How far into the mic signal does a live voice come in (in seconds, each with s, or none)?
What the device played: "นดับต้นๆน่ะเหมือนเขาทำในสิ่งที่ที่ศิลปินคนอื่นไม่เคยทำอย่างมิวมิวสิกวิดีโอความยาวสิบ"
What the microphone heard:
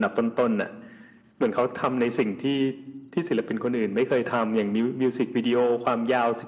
none